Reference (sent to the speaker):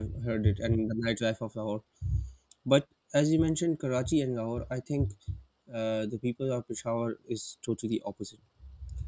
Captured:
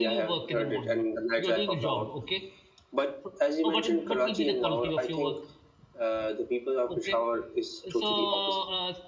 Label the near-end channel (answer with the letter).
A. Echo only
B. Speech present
B